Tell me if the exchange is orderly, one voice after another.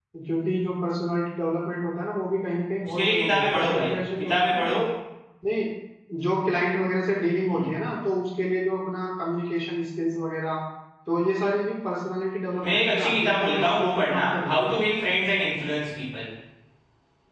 No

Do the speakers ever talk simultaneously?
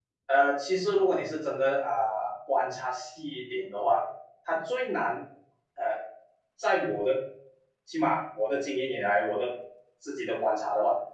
No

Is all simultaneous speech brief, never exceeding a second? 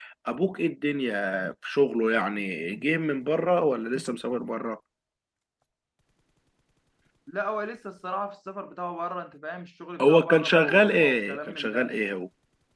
No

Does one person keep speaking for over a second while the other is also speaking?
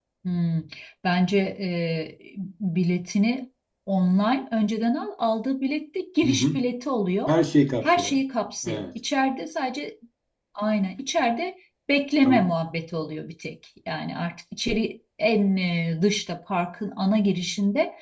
No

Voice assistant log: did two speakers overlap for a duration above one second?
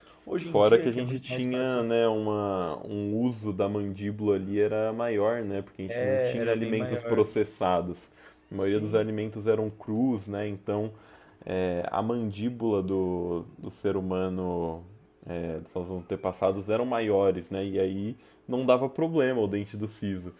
Yes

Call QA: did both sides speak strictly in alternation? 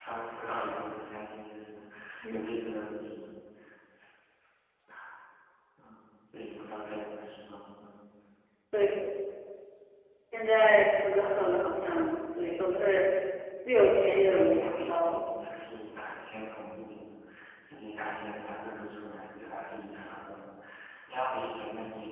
No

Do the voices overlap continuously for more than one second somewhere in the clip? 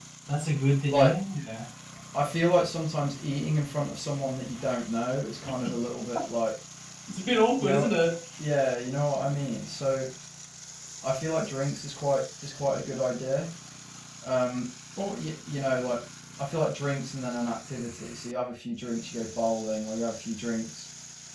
No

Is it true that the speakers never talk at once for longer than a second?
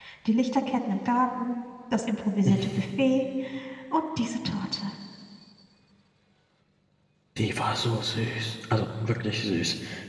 Yes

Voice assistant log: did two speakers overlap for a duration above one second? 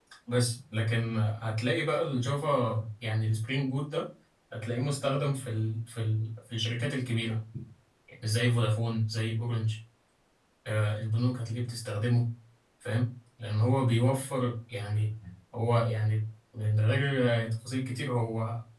No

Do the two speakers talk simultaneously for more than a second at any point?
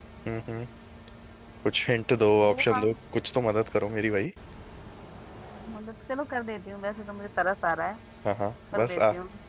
No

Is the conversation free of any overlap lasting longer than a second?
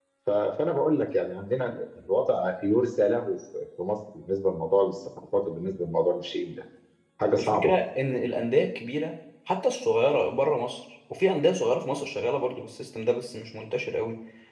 Yes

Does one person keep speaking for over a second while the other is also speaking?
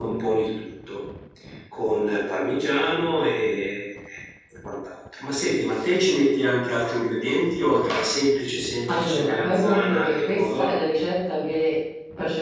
Yes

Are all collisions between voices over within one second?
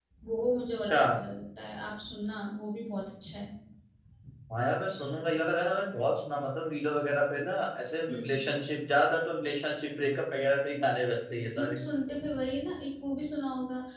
Yes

